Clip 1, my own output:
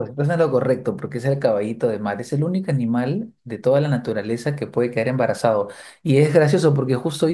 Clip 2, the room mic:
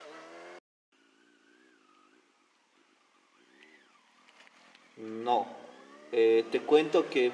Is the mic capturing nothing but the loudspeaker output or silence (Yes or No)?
No